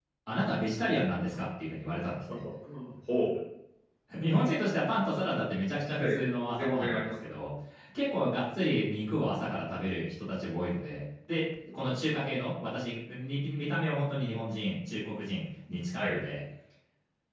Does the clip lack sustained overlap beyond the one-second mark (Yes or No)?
No